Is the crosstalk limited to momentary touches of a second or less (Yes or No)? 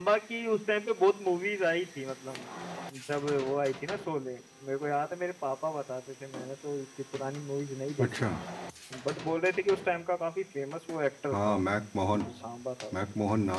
Yes